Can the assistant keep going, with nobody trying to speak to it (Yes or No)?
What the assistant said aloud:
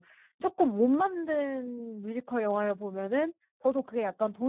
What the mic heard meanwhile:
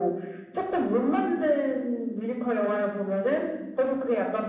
Yes